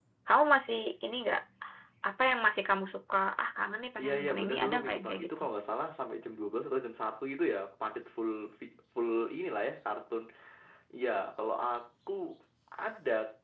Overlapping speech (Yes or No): Yes